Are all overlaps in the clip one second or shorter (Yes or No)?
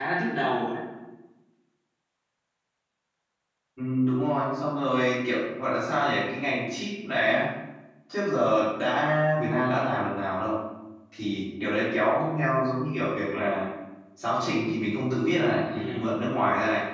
Yes